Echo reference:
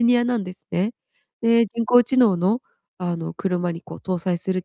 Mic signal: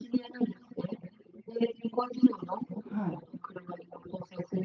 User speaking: Yes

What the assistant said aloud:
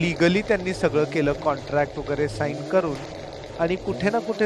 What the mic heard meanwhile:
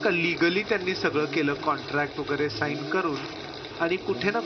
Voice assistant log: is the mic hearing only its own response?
Yes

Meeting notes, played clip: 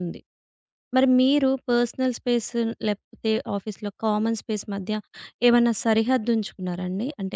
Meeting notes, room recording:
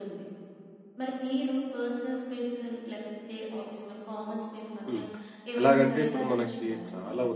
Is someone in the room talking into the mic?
Yes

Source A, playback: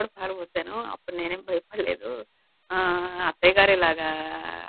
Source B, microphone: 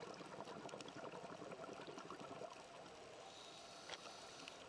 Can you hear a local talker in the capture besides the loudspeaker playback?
No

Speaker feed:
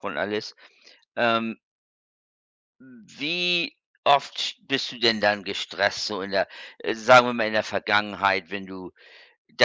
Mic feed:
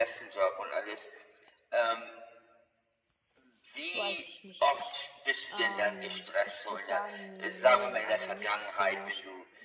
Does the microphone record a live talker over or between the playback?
Yes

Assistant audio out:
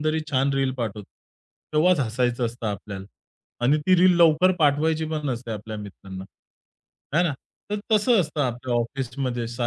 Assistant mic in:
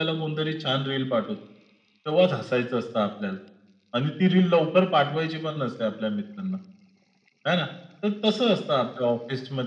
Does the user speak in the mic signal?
No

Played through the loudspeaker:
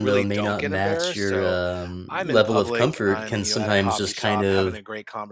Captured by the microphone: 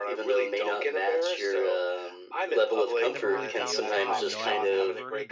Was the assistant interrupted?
Yes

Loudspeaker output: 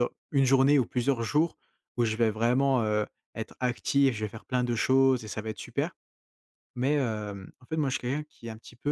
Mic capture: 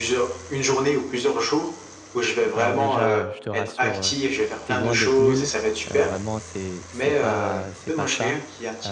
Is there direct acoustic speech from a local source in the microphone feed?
Yes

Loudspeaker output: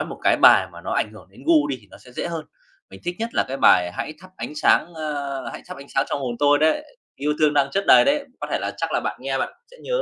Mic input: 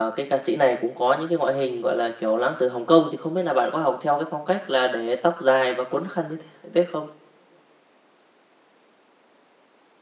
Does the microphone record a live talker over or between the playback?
Yes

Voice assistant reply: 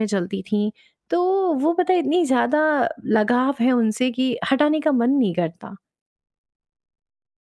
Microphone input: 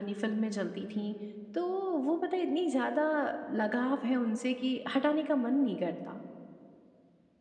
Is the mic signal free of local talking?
Yes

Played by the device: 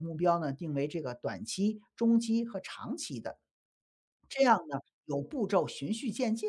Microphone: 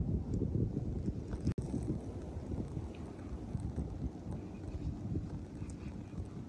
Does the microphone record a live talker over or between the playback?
No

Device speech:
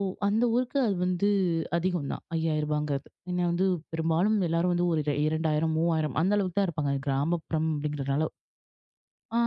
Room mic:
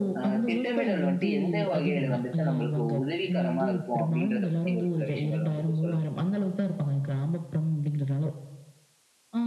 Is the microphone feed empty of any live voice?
No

